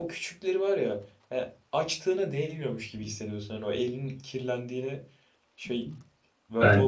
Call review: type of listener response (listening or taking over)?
taking over